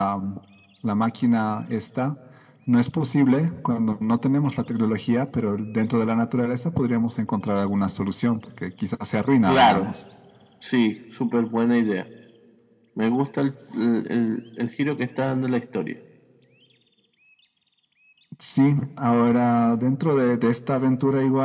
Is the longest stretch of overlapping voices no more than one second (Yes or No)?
Yes